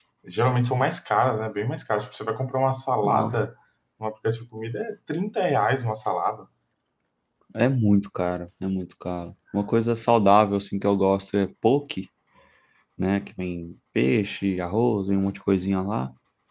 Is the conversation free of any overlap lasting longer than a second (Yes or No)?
Yes